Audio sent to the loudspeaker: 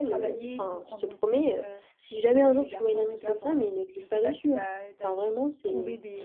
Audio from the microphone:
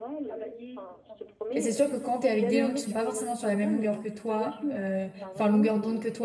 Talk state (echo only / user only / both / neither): both